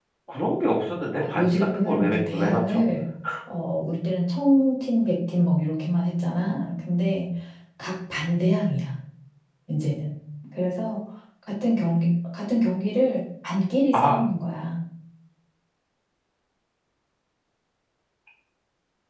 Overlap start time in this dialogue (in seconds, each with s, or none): 1.2 s